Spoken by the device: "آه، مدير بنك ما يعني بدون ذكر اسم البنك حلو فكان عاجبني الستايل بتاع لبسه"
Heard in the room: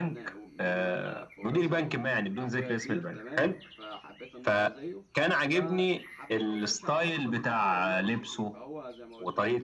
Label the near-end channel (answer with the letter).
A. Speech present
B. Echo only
A